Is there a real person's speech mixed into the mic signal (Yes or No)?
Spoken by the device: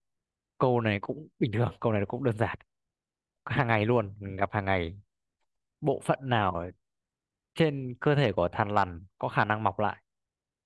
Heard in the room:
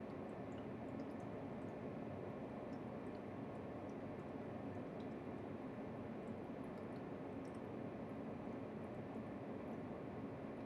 No